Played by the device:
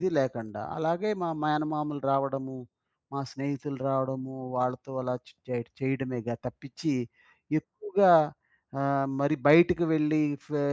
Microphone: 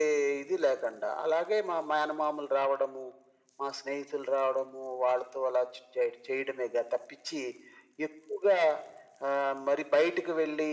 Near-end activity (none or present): none